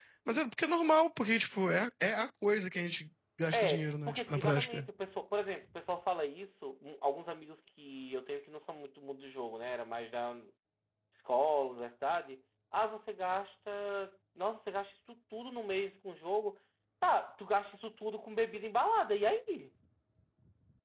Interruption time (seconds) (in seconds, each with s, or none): 3.5 s